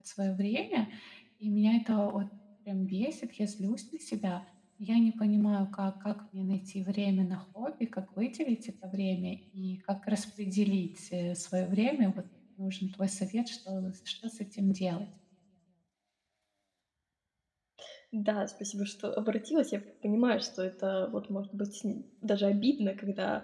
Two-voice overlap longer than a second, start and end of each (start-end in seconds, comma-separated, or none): none